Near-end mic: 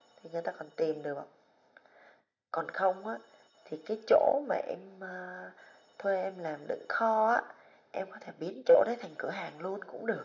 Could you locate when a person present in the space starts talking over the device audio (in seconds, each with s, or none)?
none